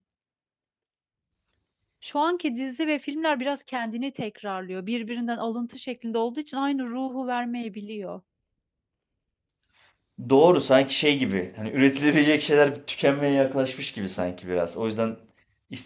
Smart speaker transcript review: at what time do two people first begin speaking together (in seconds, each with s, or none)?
none